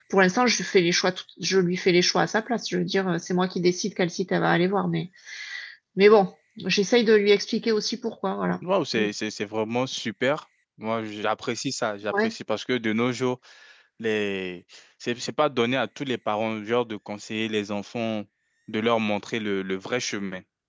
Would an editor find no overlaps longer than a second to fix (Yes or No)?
Yes